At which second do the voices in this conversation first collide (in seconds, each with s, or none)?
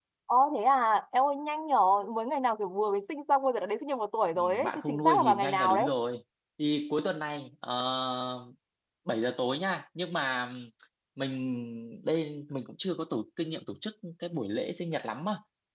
4.3 s